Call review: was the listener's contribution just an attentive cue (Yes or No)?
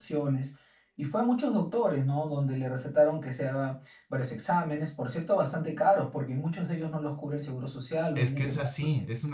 No